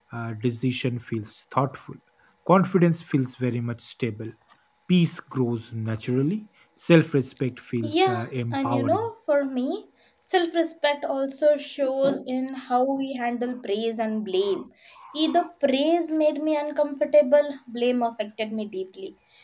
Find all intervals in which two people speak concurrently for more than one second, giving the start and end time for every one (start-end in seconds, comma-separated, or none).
7.8-9.1